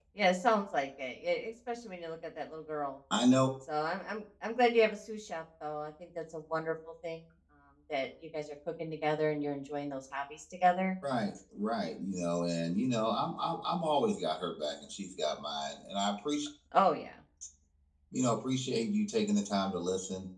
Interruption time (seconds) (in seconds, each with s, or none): none